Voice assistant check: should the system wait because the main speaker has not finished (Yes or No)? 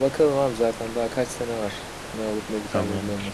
No